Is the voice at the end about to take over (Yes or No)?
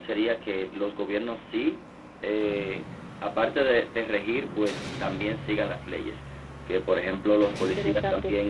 No